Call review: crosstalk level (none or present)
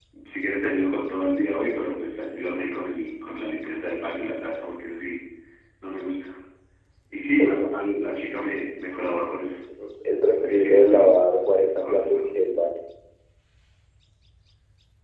present